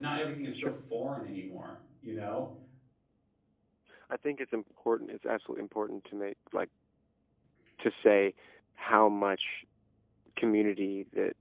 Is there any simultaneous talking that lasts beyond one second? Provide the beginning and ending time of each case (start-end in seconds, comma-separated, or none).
none